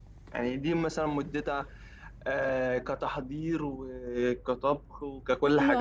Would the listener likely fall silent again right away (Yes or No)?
No